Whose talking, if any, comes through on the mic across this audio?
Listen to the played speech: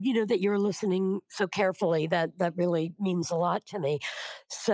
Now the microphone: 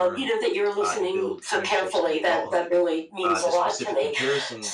both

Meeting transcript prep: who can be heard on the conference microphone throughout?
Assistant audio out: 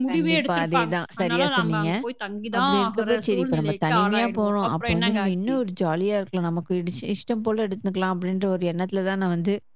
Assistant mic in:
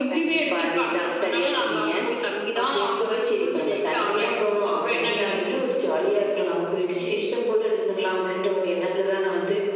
echo only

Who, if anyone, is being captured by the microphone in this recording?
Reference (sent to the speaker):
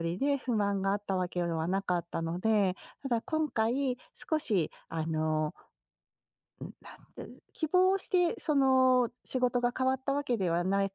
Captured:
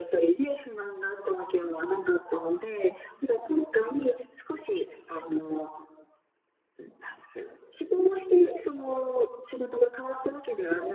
echo only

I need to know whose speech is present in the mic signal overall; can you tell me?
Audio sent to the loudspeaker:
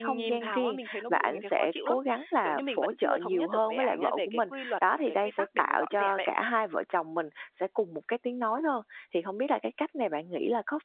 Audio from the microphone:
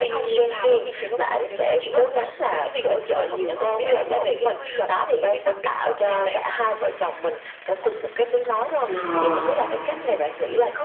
both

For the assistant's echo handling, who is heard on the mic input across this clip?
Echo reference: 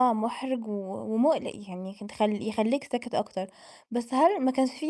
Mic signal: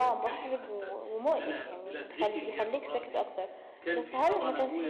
both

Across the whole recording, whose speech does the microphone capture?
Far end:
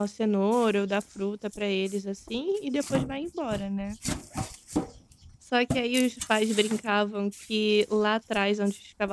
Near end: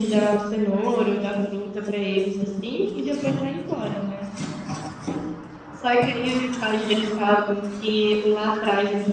echo only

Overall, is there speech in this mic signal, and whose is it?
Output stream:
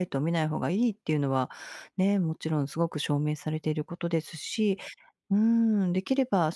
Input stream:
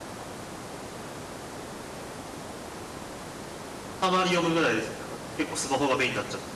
user only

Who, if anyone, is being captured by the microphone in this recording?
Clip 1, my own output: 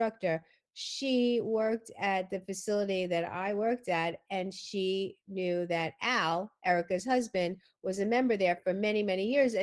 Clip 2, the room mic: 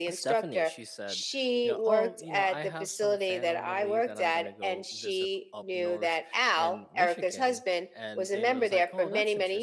both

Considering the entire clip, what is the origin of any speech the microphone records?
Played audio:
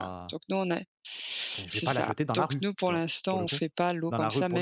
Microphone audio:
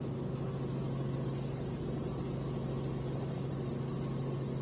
neither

